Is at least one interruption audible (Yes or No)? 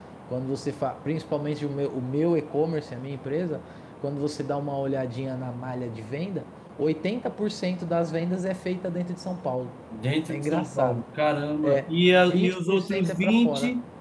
Yes